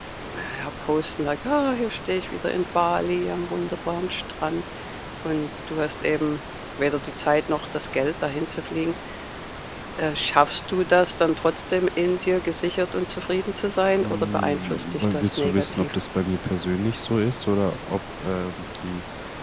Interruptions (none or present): present